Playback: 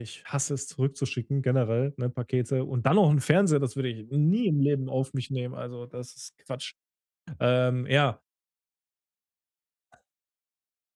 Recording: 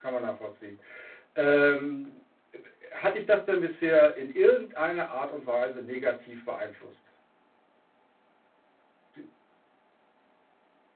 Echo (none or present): none